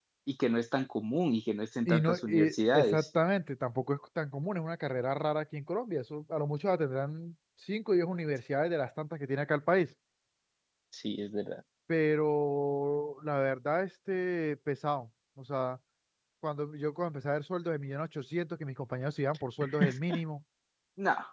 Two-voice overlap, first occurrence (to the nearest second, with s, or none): 2 s